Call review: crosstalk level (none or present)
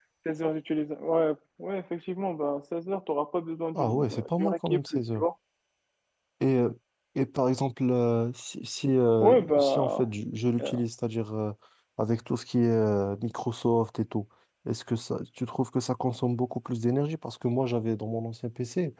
present